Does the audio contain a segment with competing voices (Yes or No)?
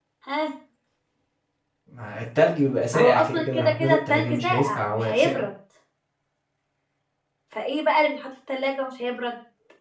Yes